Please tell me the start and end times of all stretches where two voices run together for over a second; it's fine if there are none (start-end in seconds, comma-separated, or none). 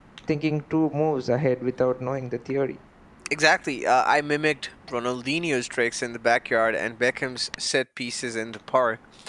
none